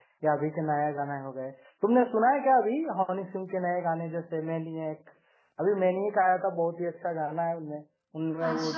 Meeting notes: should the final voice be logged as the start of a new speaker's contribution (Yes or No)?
Yes